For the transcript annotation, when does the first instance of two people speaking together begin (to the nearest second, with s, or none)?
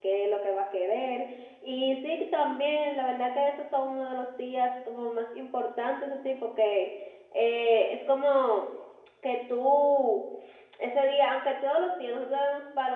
none